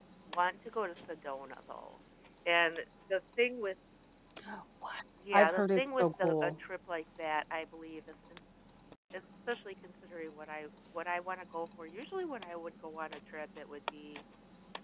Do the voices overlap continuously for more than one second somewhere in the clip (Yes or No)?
Yes